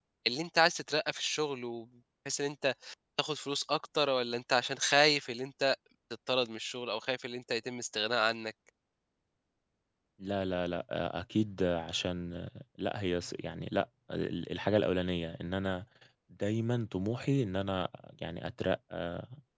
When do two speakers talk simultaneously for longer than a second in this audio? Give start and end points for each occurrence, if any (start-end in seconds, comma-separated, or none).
none